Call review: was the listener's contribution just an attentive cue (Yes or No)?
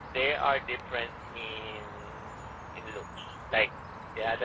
Yes